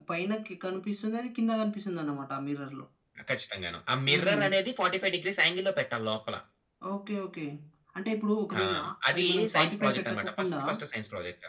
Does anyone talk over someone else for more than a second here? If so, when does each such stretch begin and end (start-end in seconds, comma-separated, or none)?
9.1-10.6